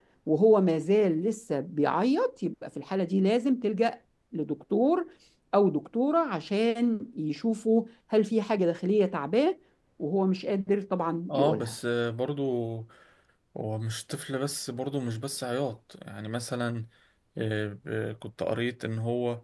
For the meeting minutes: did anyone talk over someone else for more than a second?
No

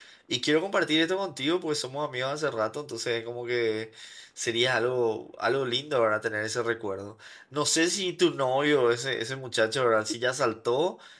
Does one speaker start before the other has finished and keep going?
No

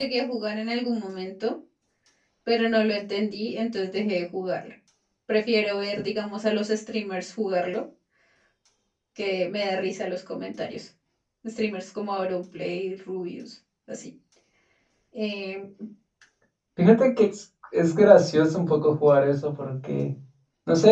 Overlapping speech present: No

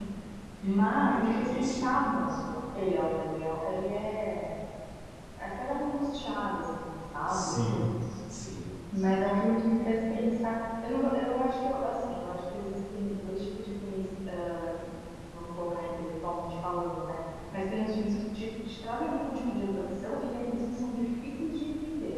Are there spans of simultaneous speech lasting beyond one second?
Yes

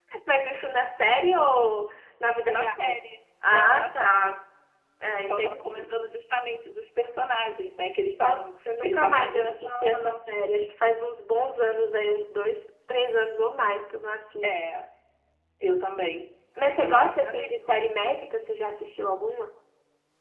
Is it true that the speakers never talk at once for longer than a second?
No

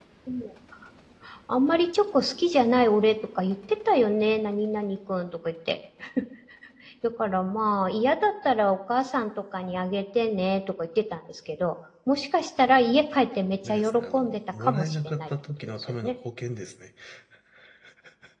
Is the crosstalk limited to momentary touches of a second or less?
No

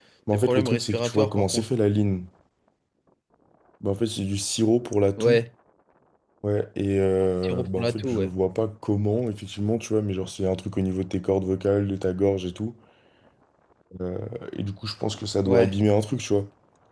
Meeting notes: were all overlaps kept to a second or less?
No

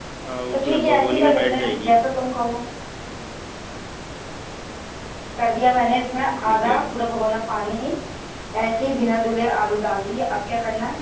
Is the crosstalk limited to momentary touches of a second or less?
No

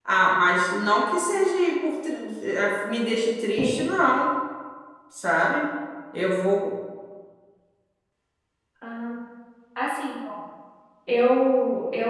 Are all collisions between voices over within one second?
Yes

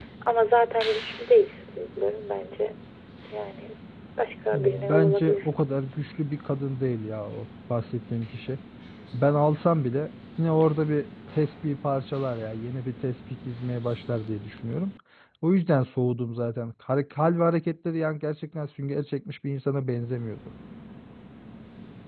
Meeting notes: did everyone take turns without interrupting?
No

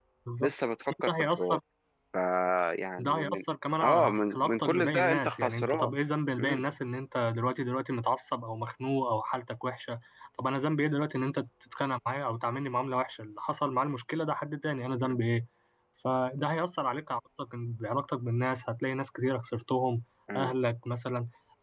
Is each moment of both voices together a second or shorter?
No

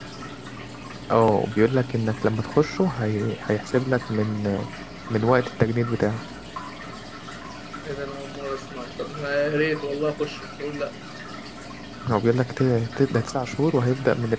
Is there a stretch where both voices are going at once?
No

